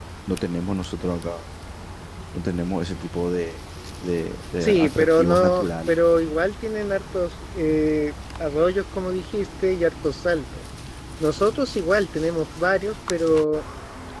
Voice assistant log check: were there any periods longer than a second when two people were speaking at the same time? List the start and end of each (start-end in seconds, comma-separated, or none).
4.6-6.0